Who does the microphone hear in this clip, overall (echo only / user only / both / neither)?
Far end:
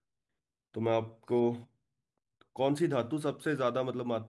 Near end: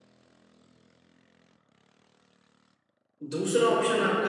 user only